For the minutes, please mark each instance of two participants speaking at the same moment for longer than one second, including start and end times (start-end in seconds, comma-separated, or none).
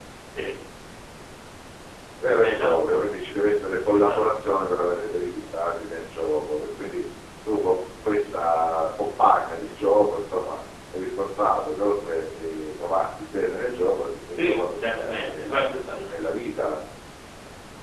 14.4-15.6